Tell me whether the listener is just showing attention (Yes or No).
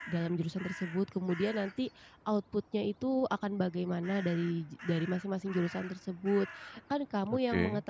Yes